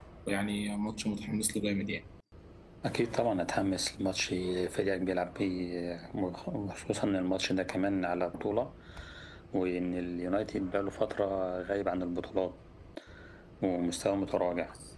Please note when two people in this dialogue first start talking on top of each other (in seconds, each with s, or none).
none